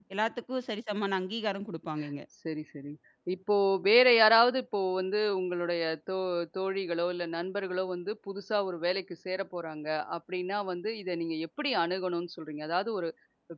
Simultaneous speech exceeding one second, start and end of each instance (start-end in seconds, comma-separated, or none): none